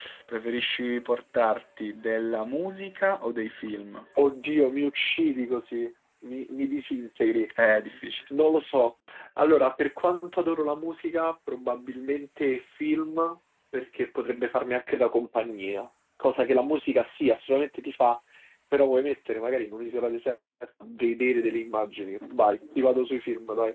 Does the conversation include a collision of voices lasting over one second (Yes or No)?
No